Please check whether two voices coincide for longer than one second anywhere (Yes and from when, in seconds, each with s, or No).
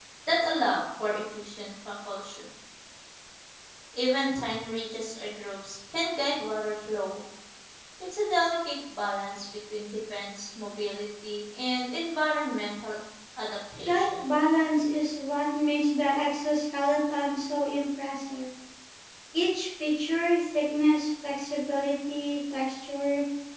No